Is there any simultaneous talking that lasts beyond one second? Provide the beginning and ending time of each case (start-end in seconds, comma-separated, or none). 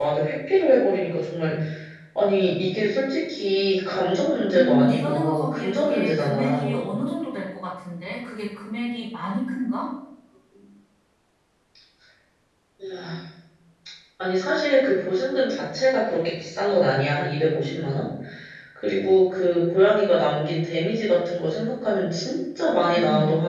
4.5-6.8